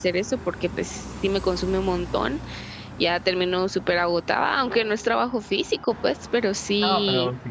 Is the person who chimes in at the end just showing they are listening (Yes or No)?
No